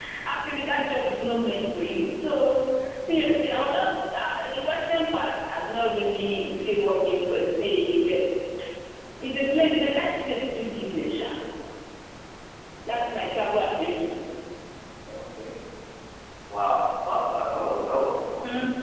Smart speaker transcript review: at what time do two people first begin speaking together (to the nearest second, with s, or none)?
none